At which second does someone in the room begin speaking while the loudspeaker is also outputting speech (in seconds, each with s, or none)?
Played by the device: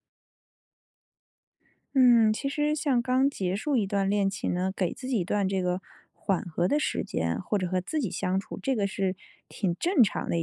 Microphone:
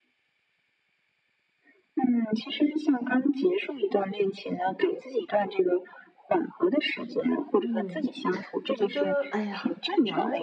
7.6 s